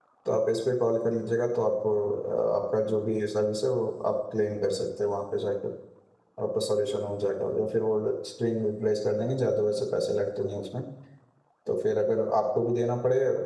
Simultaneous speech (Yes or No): No